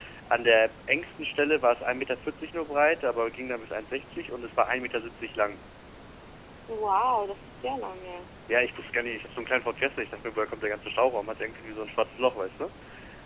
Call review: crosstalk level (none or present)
none